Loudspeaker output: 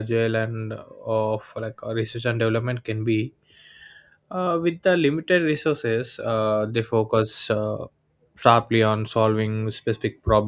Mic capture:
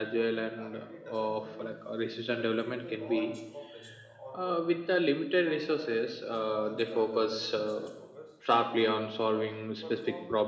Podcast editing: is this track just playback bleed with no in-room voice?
No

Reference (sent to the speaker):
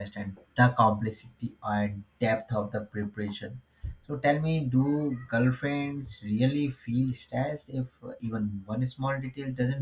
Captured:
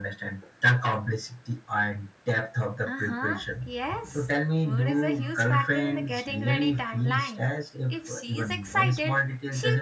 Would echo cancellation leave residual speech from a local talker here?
Yes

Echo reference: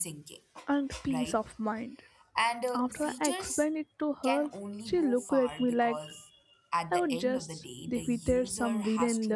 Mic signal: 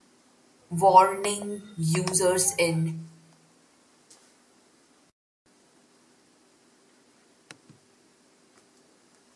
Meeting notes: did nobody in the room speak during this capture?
No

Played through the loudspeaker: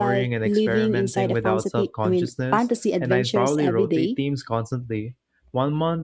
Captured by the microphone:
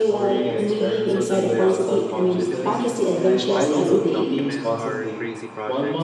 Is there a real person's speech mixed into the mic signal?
Yes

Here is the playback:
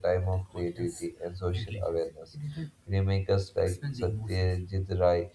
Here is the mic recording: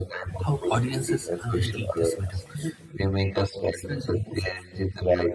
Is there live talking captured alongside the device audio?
Yes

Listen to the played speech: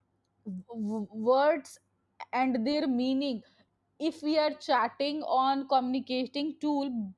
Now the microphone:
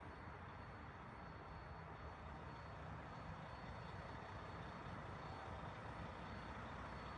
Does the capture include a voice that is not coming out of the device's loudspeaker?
No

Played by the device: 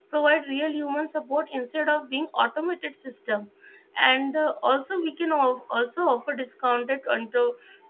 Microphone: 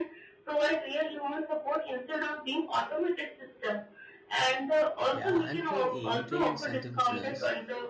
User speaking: Yes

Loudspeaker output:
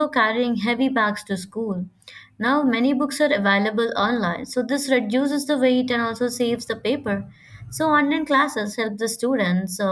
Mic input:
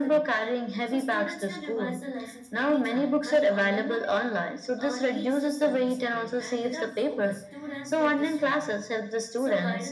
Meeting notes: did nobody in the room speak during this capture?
No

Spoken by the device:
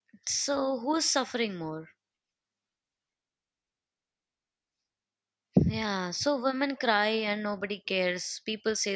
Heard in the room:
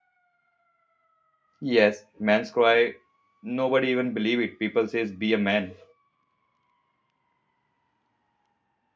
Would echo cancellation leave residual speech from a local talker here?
Yes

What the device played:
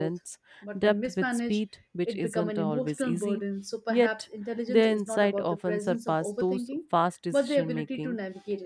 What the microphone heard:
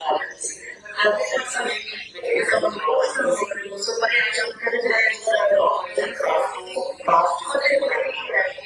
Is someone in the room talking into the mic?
No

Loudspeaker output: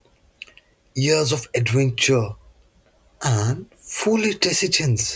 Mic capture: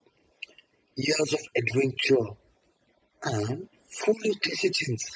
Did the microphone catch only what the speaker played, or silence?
Yes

